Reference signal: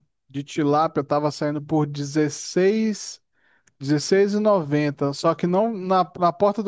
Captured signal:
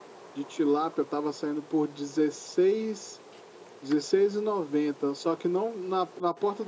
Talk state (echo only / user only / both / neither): echo only